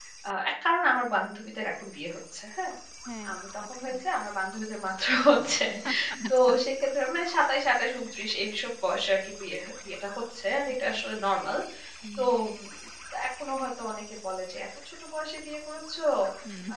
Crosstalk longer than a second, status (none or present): none